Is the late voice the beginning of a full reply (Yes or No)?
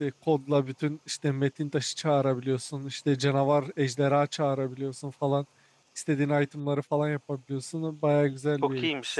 Yes